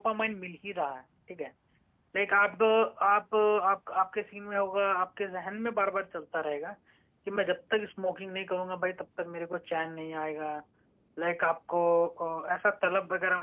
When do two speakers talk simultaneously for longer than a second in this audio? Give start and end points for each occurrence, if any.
none

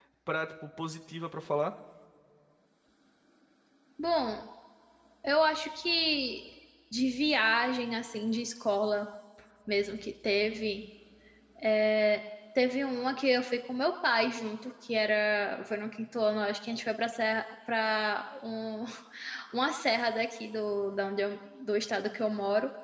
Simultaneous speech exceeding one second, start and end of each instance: none

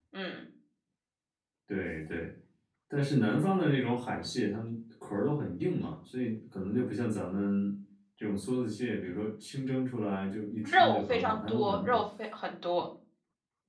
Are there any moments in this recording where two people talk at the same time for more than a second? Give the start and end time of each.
10.6-12.0

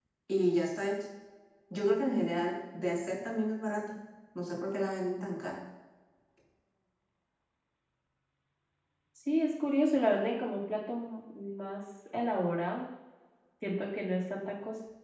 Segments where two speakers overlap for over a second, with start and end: none

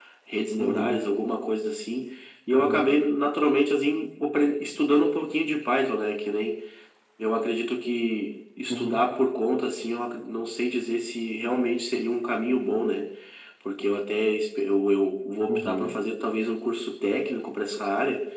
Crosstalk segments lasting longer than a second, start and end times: none

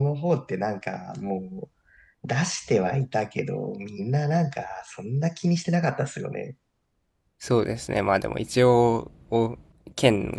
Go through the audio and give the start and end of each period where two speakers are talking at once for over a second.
none

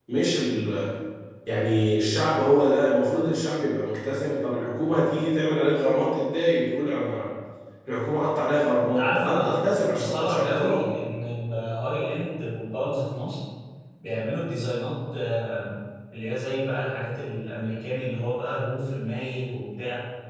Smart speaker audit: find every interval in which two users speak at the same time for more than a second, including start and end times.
8.8-10.9

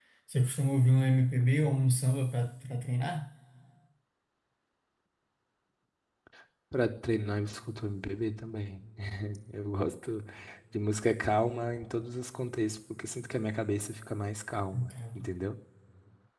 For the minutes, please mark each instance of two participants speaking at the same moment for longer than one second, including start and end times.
none

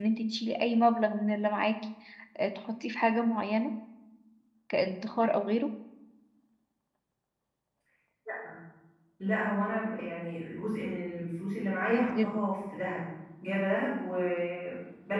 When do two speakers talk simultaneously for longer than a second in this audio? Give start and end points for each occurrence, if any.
none

